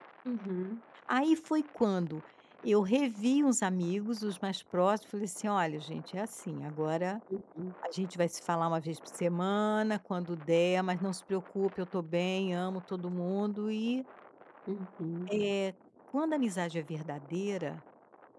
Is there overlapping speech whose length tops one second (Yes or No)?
No